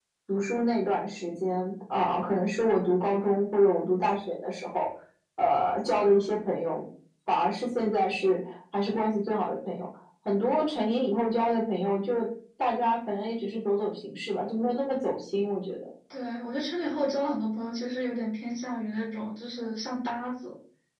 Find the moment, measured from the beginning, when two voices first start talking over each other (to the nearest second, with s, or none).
none